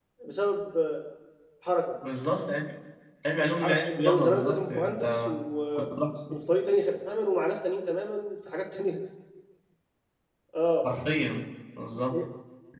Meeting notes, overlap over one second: present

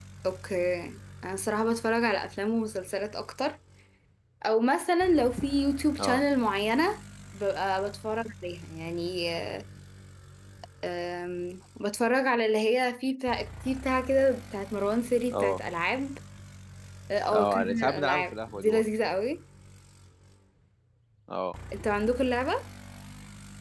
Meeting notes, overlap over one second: present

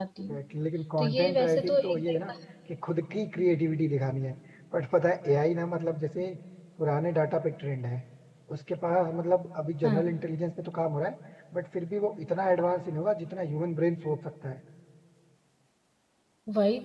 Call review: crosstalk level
present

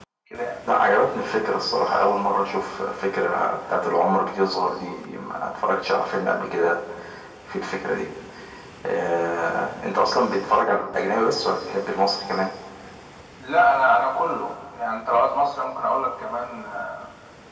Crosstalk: none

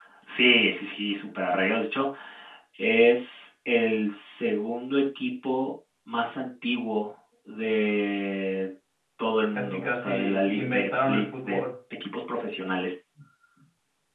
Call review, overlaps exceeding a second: present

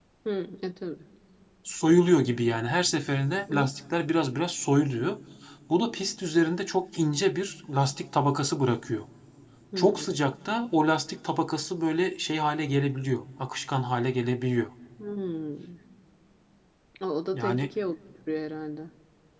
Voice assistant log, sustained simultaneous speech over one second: none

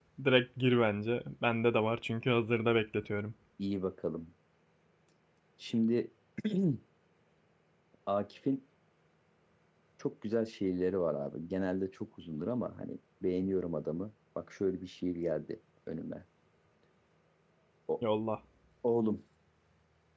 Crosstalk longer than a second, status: none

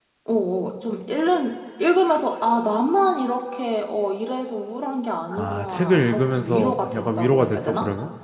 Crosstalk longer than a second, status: present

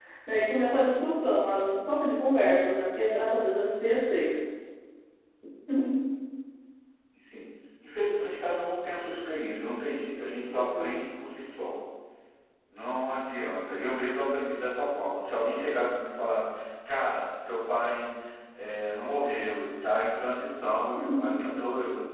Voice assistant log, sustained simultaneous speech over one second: none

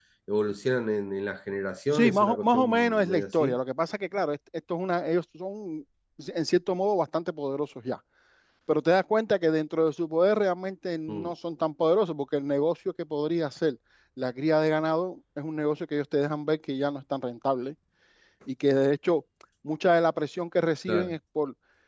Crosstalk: present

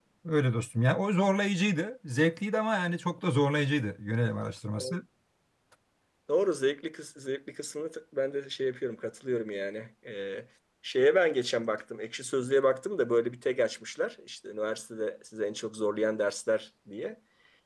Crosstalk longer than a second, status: none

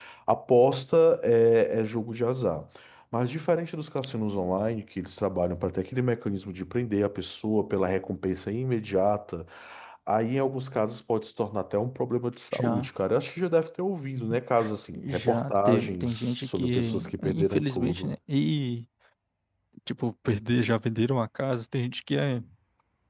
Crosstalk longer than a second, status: present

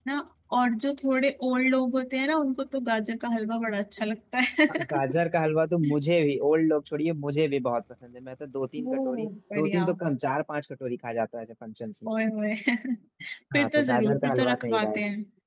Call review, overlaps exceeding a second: present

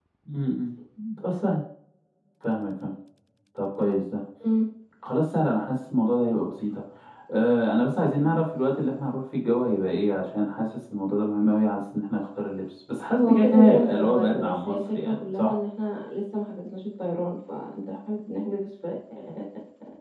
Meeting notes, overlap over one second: present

